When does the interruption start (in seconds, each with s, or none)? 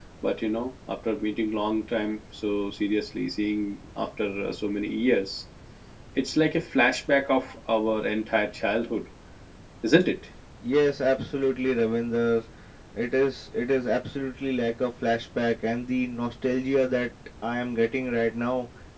none